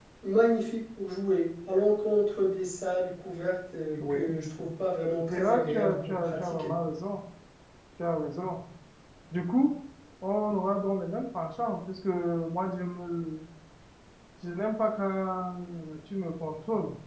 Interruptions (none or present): present